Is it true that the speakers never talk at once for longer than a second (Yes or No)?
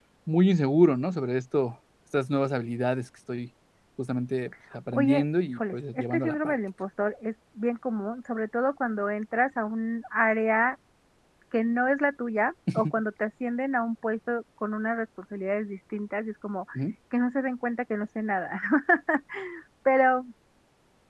No